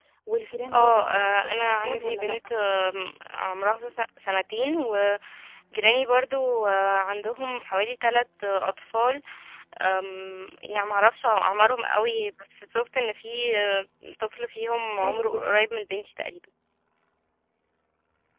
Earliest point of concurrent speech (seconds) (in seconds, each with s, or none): 0.7 s